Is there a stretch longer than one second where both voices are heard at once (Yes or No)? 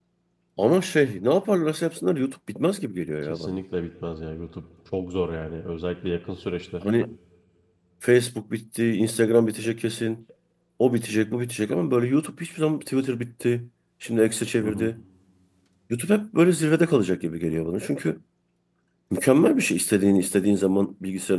No